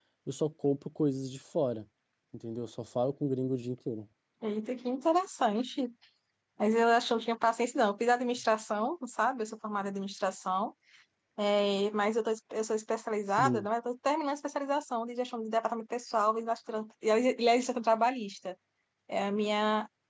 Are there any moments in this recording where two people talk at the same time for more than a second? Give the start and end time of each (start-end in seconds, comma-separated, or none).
none